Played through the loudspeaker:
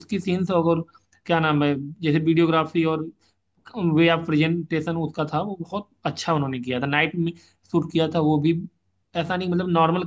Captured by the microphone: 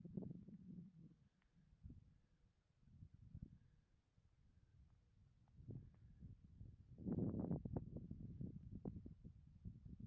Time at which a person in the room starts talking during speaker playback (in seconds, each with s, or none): none